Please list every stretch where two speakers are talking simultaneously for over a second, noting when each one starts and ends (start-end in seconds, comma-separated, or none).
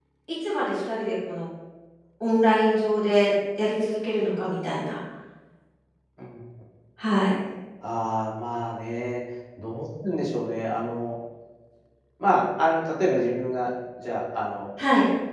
none